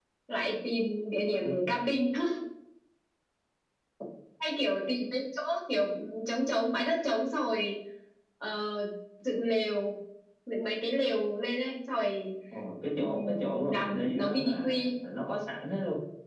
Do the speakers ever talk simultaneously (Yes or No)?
Yes